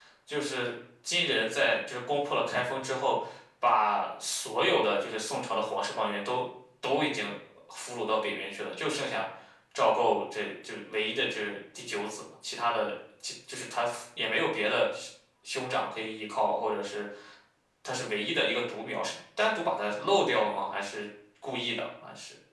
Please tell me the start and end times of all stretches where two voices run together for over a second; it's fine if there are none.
none

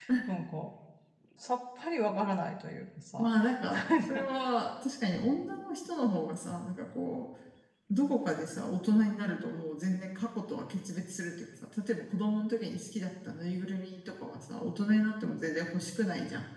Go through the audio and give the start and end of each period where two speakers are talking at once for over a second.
none

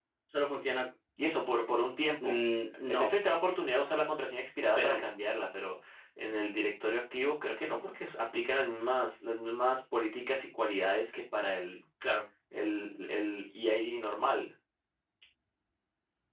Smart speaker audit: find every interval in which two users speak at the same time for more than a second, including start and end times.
none

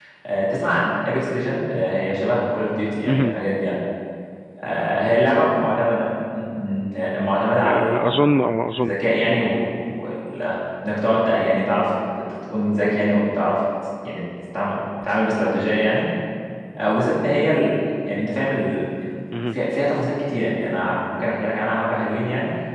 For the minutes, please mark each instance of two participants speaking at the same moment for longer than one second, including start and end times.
7.6-8.9

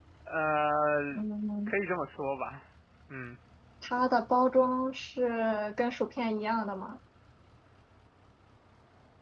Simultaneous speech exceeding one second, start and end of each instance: none

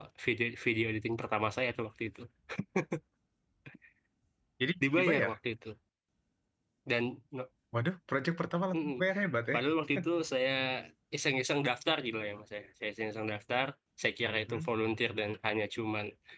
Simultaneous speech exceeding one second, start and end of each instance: none

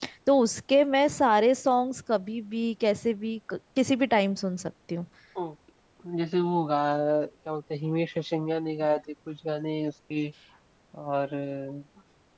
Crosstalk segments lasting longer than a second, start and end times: none

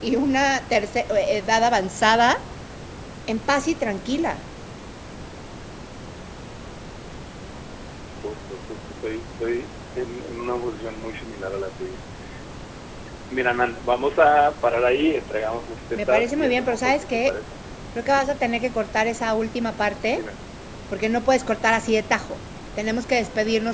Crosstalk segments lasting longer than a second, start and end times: 15.9-17.4

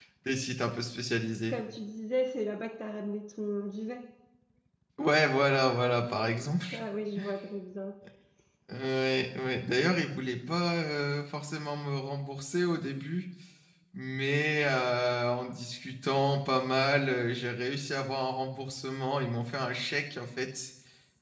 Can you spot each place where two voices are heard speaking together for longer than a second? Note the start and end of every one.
none

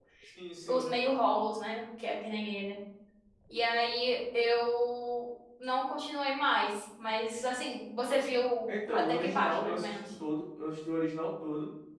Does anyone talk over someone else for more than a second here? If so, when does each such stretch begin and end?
8.7-9.9

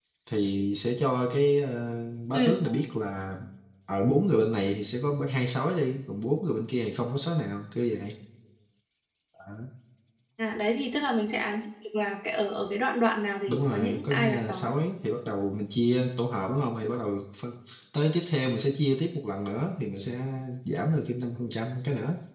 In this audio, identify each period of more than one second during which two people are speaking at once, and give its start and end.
13.5-14.7

